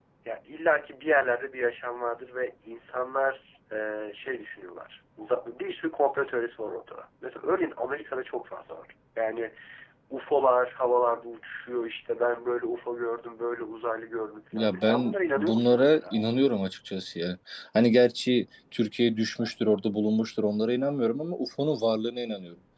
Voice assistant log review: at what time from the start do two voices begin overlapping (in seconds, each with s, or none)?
14.5 s